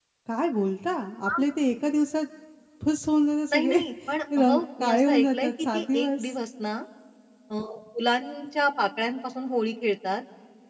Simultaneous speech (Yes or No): Yes